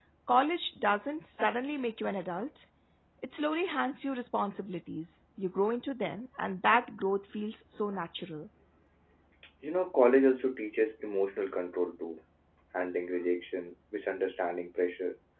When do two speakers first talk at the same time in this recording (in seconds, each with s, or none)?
none